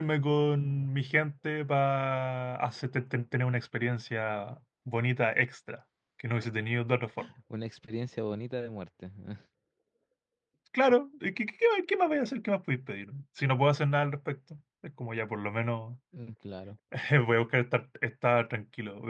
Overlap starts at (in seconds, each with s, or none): none